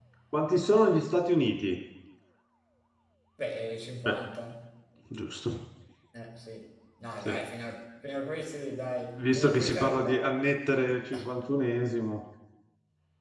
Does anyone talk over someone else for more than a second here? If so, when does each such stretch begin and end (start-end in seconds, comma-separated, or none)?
9.2-10.4